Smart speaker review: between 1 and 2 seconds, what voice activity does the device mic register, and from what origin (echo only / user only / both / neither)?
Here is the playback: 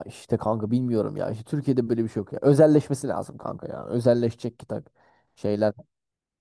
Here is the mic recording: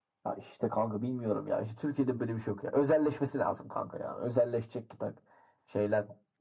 echo only